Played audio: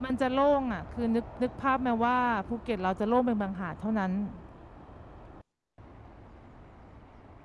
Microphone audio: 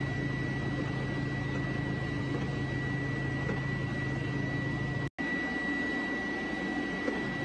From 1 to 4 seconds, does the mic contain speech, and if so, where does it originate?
neither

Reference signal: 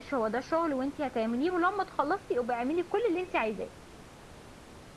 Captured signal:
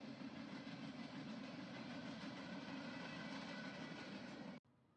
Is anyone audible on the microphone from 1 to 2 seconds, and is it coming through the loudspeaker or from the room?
neither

